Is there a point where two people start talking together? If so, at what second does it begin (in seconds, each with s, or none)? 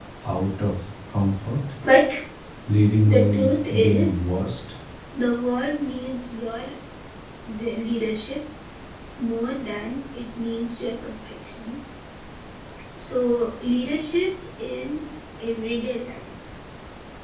3.0 s